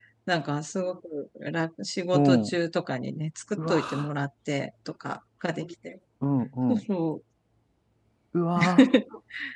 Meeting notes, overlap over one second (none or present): none